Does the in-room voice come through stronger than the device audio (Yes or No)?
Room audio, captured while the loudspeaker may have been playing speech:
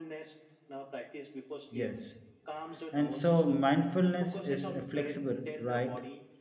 Yes